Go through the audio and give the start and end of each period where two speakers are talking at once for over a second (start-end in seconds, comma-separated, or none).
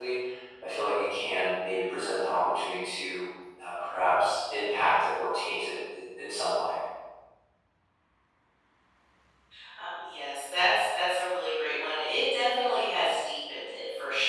none